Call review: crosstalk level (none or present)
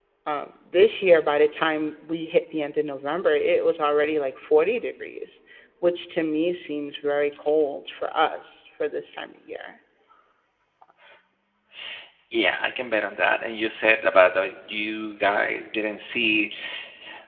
none